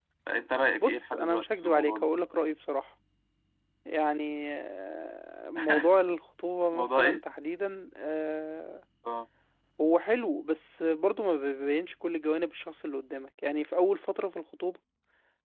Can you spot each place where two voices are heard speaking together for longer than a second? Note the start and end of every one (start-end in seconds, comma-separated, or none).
0.8-2.1